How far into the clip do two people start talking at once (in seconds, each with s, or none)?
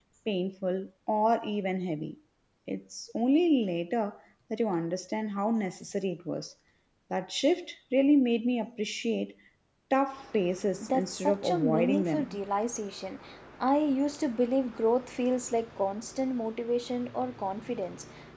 10.8 s